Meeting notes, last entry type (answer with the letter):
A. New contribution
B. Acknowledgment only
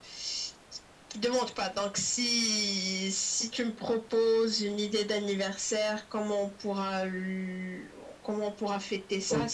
A